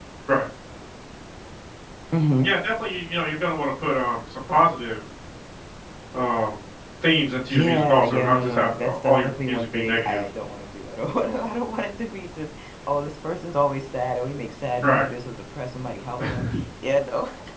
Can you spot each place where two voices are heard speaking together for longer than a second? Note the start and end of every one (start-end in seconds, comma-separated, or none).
7.5-10.2